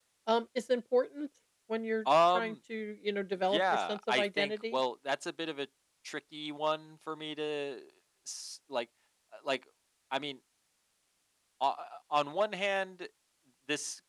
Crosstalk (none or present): present